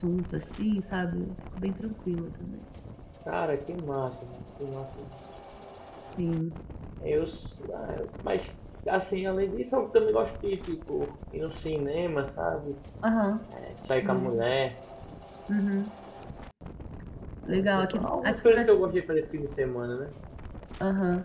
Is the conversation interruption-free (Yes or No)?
No